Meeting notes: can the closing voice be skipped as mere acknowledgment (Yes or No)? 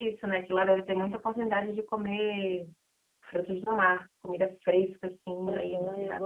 No